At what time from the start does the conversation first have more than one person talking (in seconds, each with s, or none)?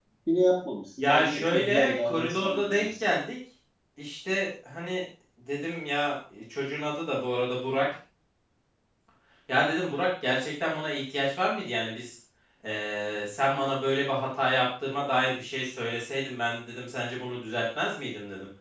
1.0 s